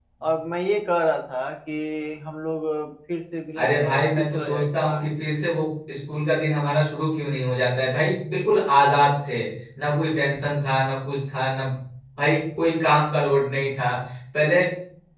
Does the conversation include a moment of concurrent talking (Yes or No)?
Yes